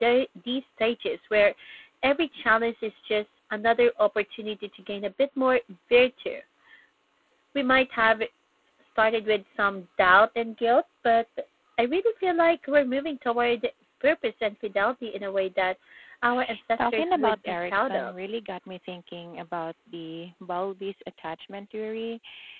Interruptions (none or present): present